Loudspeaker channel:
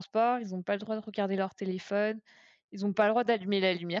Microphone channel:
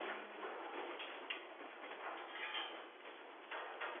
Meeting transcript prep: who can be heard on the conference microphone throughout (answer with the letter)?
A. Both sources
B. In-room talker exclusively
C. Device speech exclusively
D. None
D